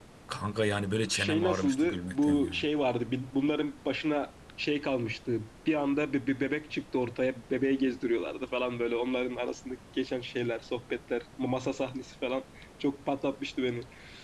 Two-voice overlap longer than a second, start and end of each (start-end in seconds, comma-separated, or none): 1.1-2.6